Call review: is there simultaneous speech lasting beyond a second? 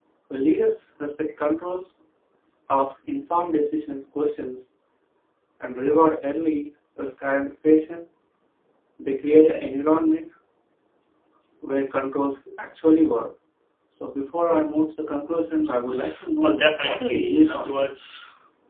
Yes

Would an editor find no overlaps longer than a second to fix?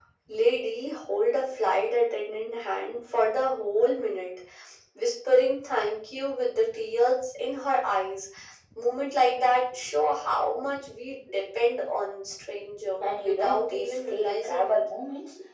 No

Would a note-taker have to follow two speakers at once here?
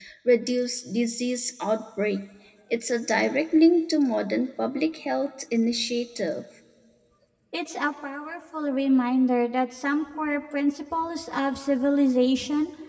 No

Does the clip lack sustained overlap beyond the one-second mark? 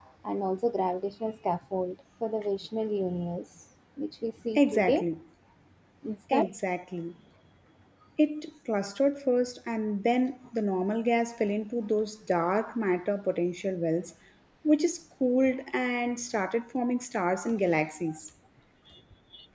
Yes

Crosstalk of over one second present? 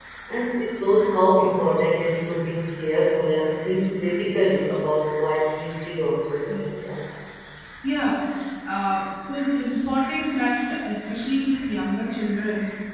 No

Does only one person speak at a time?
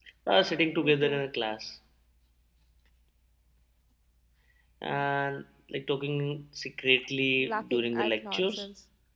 No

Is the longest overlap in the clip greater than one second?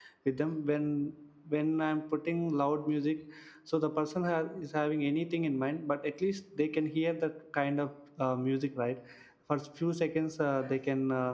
No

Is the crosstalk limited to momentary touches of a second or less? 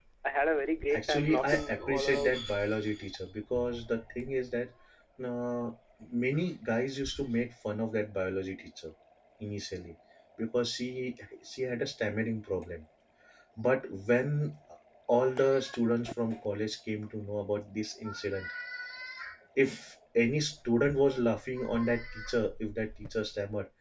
No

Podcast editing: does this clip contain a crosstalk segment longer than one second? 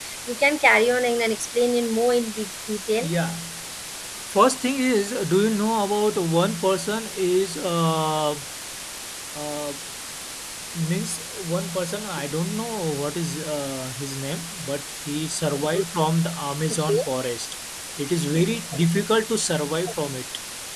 No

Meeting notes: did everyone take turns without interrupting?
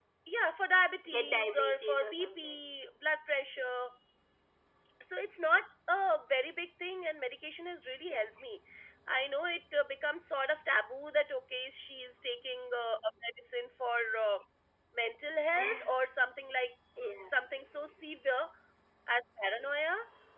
No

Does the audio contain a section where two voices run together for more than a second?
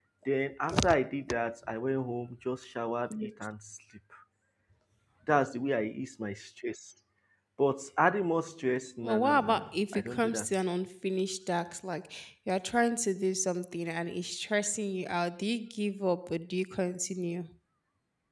Yes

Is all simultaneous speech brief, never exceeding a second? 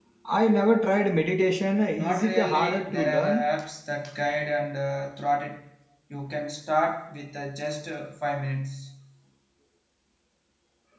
No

